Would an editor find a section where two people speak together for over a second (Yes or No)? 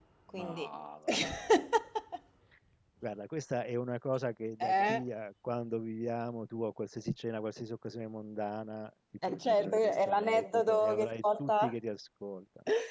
Yes